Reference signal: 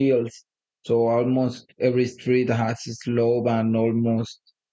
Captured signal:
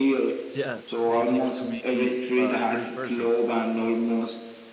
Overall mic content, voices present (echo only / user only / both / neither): both